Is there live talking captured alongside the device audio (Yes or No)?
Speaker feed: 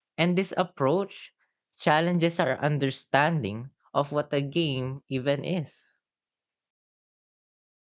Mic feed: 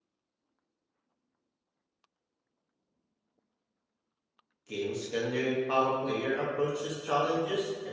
Yes